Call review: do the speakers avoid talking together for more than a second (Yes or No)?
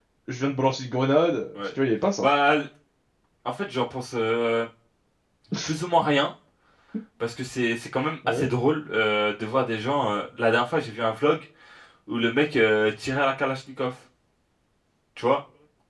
Yes